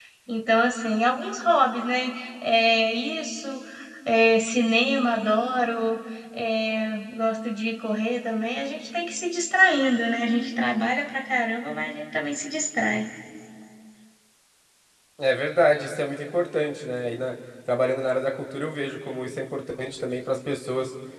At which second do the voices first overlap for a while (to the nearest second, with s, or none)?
none